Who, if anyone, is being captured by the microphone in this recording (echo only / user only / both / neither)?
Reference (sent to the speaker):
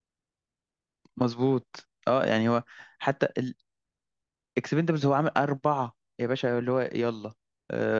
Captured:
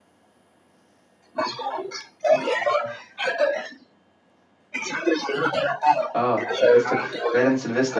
both